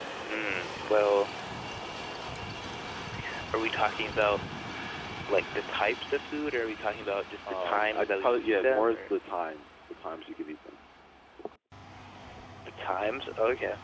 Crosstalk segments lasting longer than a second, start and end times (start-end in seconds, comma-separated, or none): 7.5-9.1